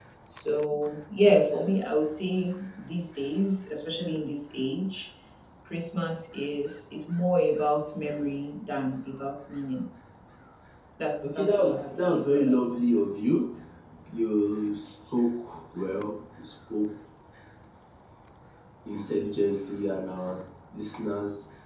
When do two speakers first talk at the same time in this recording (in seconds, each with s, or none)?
11.2 s